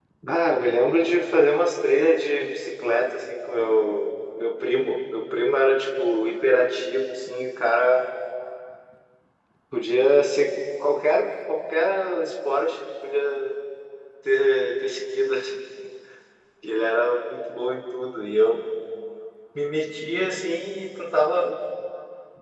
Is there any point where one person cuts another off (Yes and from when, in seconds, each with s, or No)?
No